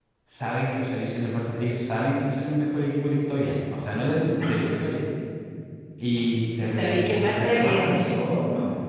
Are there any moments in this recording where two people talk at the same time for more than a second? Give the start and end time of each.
6.7-8.2

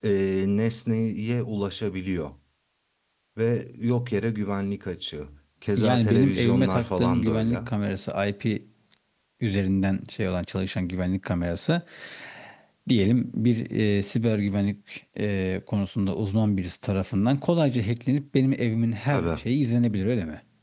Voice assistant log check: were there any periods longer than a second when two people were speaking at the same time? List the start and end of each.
5.8-7.6

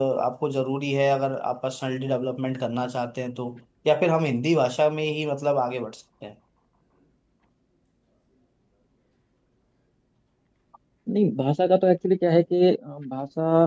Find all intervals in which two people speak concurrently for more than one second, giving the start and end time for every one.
none

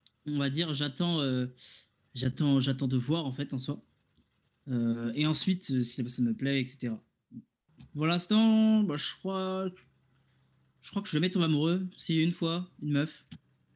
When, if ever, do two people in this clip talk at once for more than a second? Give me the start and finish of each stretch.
none

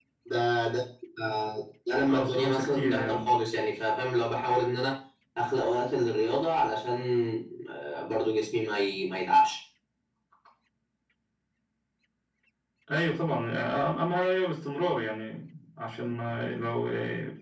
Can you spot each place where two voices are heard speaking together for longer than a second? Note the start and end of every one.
2.1-3.3

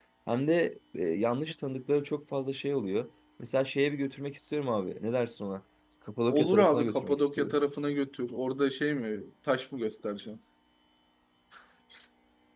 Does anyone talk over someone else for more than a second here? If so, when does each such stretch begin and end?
6.3-7.6

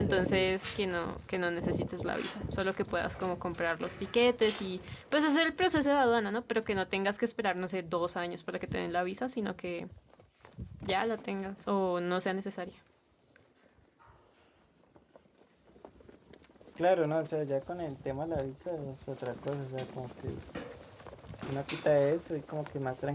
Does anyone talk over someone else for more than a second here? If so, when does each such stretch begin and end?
none

